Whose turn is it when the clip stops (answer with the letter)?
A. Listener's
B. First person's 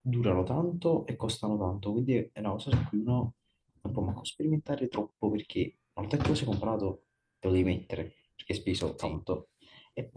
B